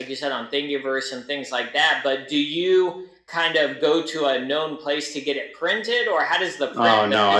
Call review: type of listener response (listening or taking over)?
taking over